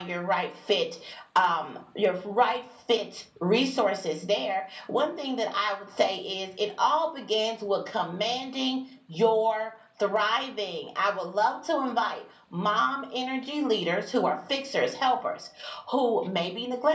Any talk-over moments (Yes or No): No